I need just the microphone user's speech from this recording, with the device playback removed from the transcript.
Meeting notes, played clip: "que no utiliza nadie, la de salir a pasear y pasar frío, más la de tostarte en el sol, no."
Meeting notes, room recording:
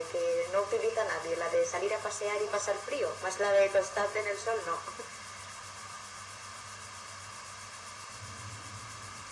none

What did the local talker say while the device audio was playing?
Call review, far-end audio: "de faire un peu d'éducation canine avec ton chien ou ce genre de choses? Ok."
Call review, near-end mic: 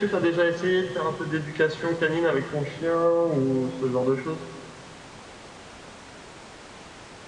none

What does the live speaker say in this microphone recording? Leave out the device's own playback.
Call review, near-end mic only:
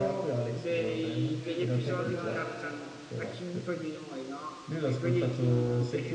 Eh, ma quello è

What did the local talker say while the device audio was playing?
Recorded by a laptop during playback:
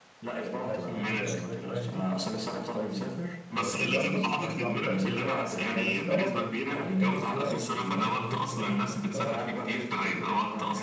ماشي انت كده كده لو سافرت بالي دي هتبقى في الواد سيزون هيبقى كده كده ارخص وهتبقى على فكره لذيذه يعني هي بس بتبقى مطره يعني لان هي استوائيه فاهم جزر استوائيه وكده فبتبقى مطره

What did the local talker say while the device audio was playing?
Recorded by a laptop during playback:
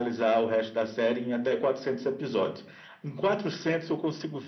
none

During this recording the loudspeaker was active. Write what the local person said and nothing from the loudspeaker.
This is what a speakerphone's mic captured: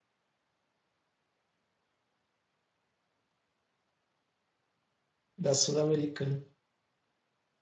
da Sul-Americana.

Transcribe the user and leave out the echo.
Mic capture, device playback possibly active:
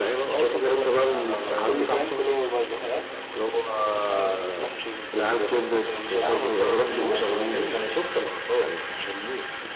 لا لا لا كل فاهم كل ما ببقى زهقان طب ما نفتح نشوف الفيلم ده تاني آه، المسلسل ده تاني نفتح نشوف المسلسل ده تاني

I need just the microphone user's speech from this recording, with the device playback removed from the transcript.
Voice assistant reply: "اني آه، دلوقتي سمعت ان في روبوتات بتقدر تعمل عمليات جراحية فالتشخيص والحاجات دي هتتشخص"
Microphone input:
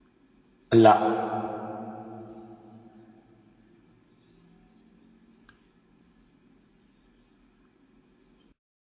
لا

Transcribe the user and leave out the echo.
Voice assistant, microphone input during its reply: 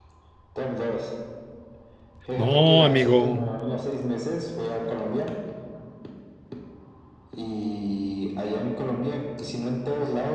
No, amigo,

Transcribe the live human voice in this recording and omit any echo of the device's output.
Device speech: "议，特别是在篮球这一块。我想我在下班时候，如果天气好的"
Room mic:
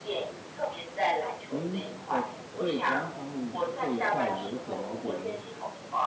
您是否对广场舞这一块有所了解呢？

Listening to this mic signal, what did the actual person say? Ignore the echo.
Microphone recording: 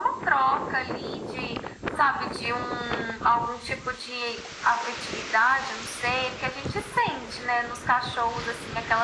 none

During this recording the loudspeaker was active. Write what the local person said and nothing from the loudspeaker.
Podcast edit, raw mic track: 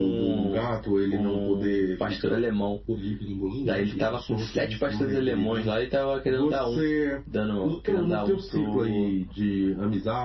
none

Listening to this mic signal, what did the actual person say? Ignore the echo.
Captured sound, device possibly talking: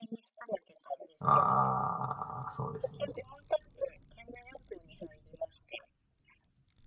ああ、そうですよね。

